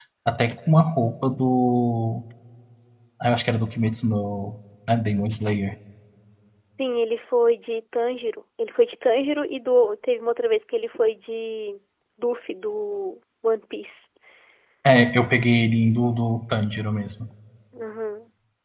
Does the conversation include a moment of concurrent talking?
No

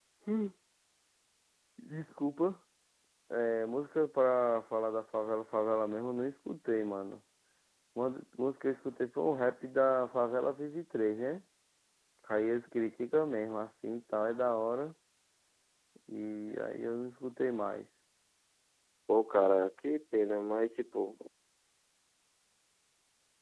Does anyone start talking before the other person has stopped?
No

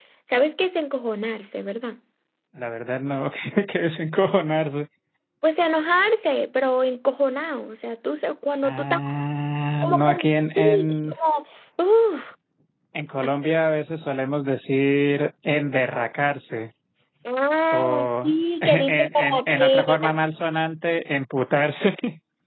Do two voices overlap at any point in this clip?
Yes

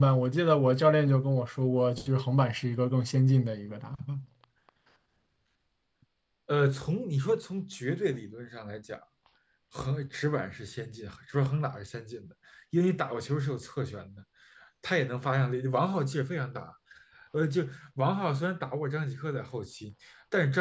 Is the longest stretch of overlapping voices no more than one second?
Yes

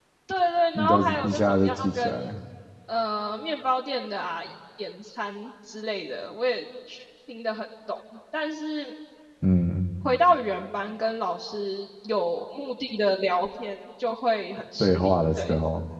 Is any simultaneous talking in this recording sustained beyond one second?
Yes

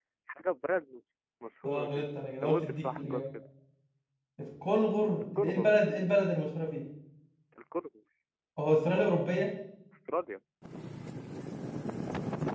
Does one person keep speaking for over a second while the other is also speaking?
Yes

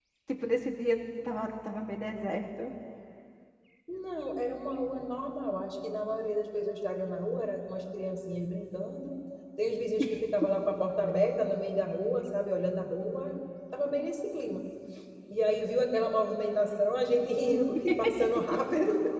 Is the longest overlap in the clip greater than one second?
No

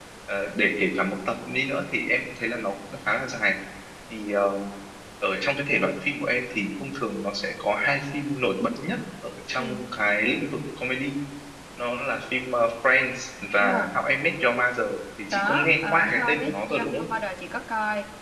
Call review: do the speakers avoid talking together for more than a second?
No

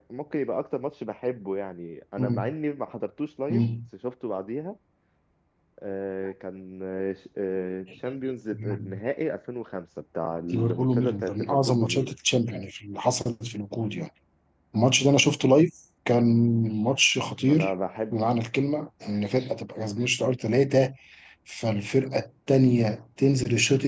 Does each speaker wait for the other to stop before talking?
No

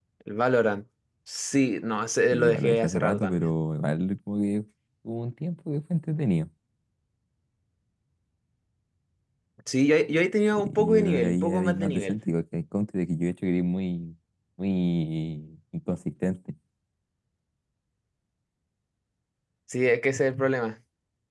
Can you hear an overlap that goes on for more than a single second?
Yes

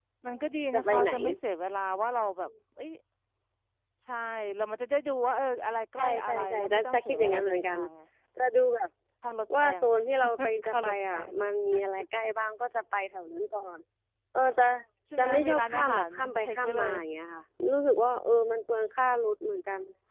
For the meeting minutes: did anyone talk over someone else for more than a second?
Yes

